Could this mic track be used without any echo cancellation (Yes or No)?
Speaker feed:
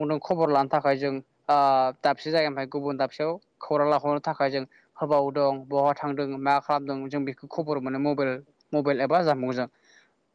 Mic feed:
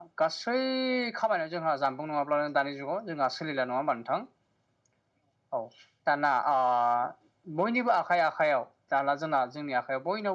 Yes